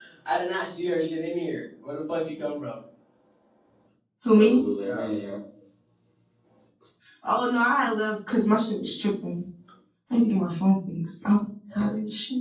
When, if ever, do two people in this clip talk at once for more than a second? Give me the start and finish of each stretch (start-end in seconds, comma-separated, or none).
none